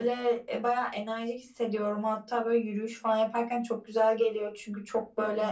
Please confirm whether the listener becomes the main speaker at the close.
No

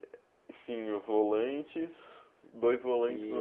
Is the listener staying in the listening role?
Yes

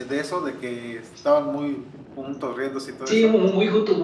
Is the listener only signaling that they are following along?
No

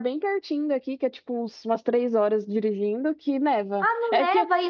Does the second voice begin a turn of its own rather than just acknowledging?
Yes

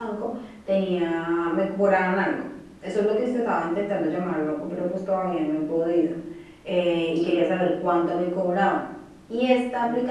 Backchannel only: Yes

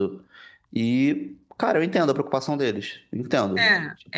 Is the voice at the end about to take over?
Yes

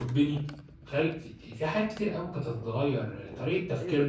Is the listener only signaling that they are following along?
No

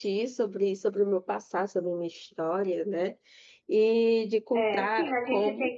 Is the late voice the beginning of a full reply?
Yes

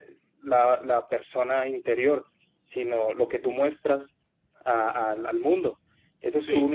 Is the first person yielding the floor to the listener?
No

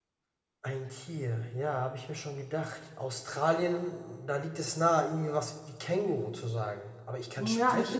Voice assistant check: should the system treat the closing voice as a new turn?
Yes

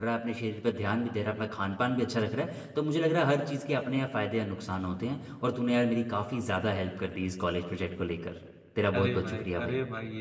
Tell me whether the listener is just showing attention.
No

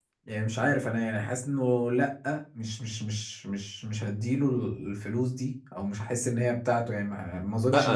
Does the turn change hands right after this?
Yes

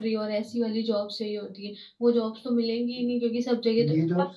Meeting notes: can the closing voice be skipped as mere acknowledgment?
No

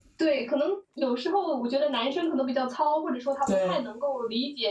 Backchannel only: Yes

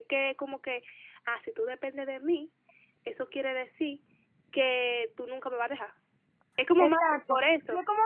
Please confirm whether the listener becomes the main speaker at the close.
Yes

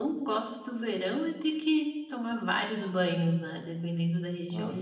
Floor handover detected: No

